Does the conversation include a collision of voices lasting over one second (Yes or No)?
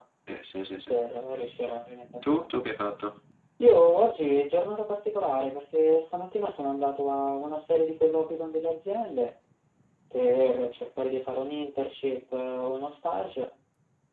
No